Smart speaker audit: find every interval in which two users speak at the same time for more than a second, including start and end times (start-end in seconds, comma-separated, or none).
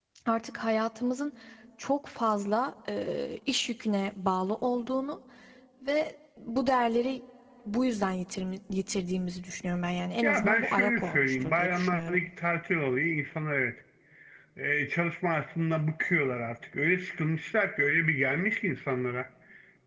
10.2-12.2